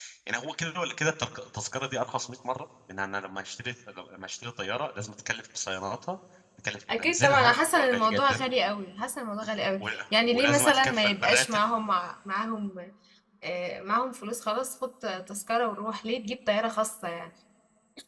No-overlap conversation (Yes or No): No